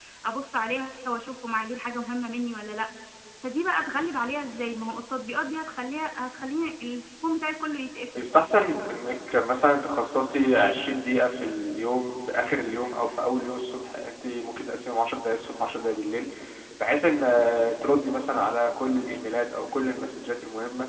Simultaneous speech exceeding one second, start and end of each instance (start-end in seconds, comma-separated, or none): none